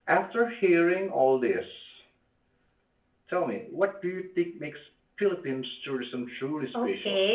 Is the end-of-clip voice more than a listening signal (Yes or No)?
Yes